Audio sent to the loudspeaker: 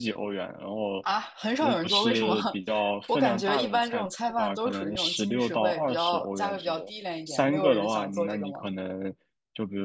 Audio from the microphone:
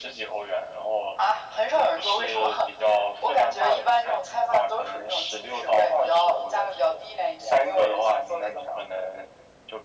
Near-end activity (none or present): none